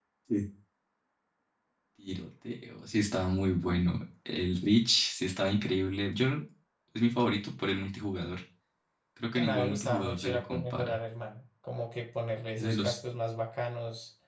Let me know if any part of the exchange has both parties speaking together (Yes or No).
Yes